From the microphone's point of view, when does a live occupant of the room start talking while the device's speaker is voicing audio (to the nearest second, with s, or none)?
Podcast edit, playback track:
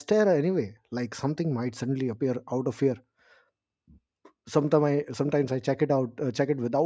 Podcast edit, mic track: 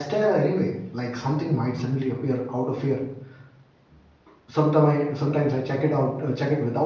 none